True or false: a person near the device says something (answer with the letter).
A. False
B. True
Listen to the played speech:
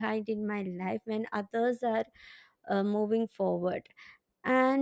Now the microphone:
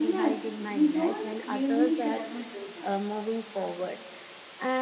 B